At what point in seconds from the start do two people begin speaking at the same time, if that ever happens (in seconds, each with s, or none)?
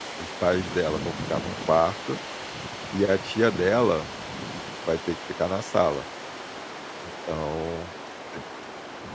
none